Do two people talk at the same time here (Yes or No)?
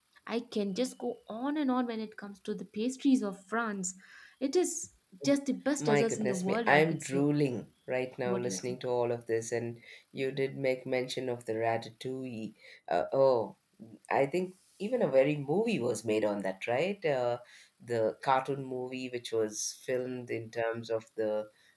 Yes